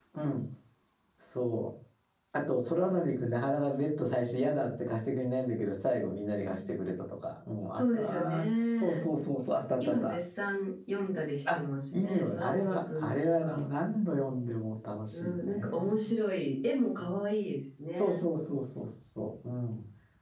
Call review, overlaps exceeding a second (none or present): present